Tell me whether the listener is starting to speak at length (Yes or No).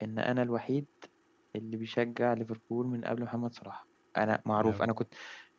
No